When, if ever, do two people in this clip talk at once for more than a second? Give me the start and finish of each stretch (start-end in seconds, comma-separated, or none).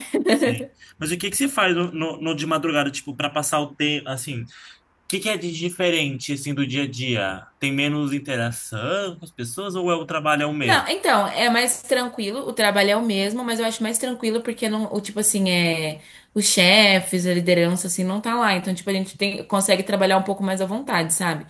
none